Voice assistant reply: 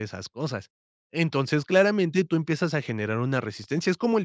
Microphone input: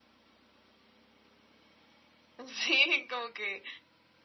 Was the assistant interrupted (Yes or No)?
Yes